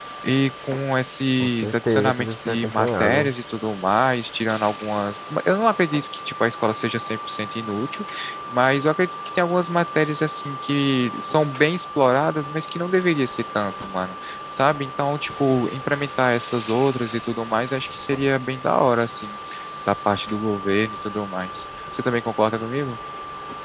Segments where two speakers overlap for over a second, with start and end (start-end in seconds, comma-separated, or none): 1.4-3.3